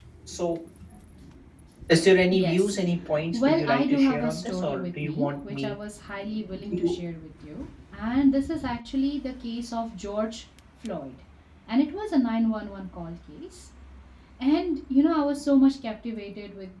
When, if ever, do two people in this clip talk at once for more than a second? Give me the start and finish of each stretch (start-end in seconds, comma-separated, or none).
3.3-5.7